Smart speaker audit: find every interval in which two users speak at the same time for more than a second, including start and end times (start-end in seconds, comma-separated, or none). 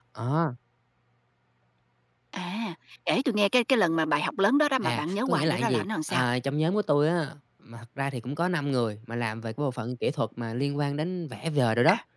4.8-6.2